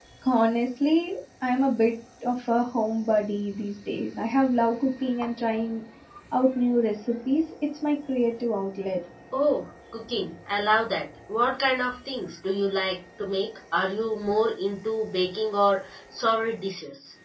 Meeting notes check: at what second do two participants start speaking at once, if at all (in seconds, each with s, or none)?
none